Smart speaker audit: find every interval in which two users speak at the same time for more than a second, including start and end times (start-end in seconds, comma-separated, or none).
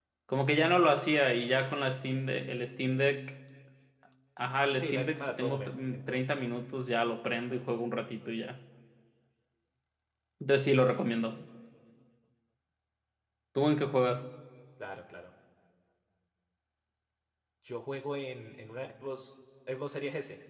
4.7-6.2